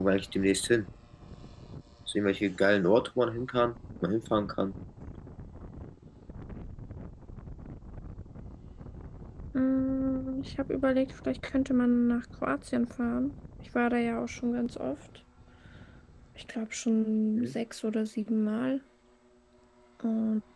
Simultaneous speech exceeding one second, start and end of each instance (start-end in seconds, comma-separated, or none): none